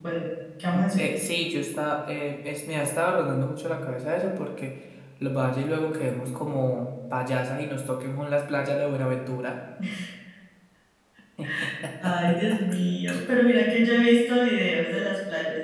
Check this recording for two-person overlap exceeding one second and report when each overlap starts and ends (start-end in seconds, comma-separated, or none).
none